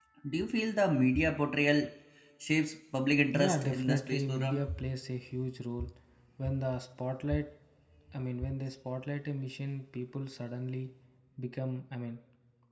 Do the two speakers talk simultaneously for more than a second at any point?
Yes, from 3.3 s

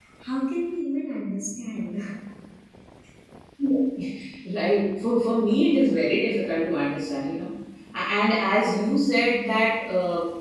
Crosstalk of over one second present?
No

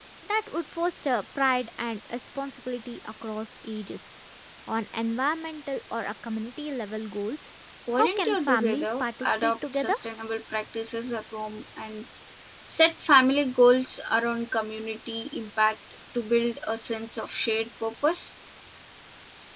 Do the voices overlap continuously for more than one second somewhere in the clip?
Yes, from 8.0 s

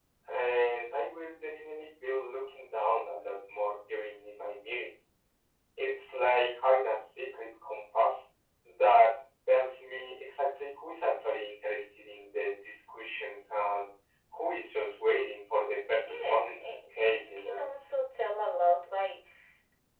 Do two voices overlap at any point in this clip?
Yes, from 16.0 s

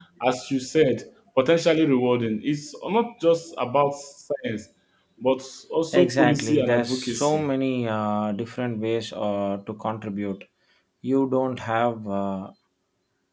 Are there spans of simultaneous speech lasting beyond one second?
Yes, from 5.9 s

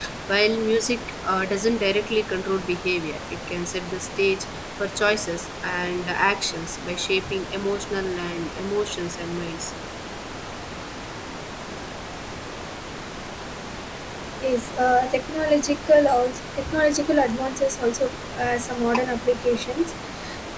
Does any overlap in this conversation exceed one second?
No

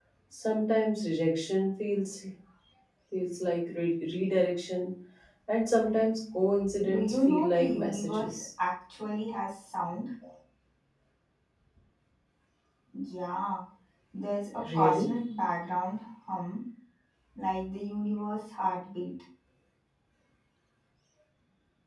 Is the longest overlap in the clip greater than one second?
Yes, from 6.8 s

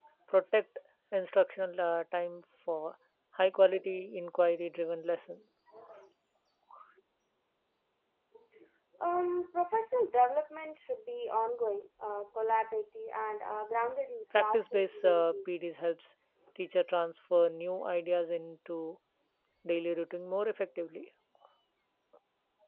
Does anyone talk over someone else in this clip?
Yes, from 14.3 s

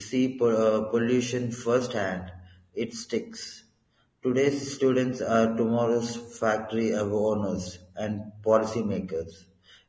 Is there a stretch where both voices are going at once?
No

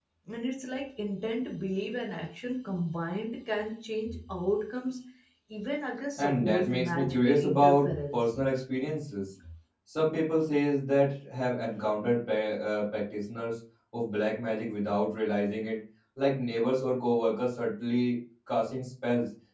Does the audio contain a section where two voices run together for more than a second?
Yes, from 6.2 s

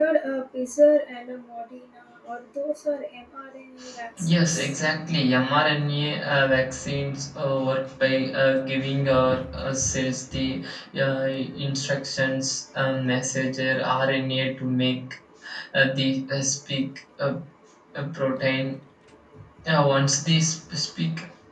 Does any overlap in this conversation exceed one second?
No

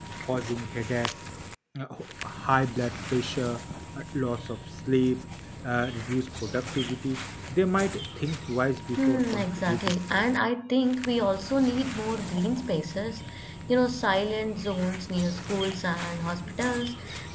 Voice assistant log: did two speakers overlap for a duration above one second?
Yes, from 9.0 s

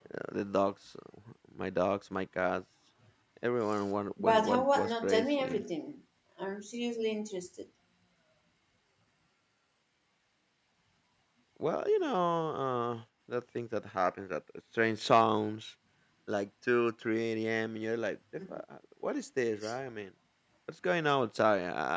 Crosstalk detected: Yes, from 4.2 s

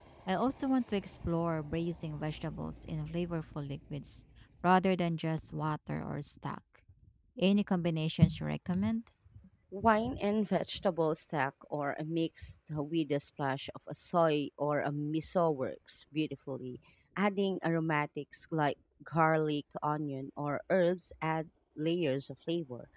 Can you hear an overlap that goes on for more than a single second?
No

